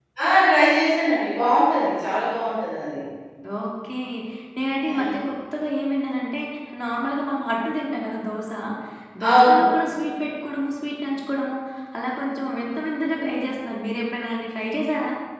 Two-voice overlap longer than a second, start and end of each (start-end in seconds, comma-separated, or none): none